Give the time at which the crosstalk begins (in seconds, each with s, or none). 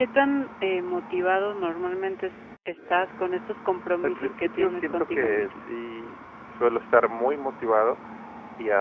4.0 s